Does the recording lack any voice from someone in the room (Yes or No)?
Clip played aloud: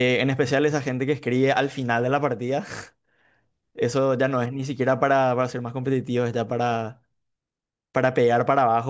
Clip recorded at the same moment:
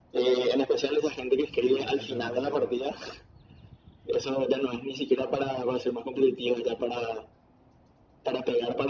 No